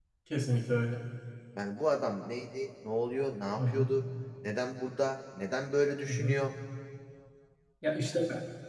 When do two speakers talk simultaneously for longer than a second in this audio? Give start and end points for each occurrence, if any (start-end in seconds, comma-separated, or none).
none